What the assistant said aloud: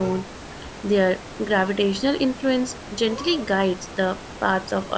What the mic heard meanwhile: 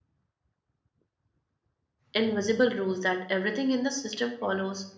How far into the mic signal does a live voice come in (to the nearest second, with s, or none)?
2 s